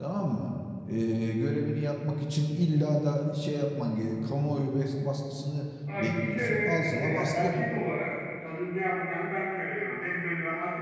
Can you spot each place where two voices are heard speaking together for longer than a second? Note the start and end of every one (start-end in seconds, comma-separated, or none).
6.0-7.5